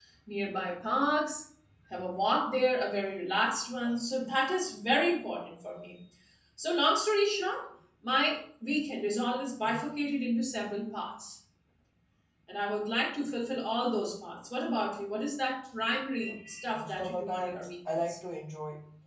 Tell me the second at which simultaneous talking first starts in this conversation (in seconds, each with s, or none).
16.8 s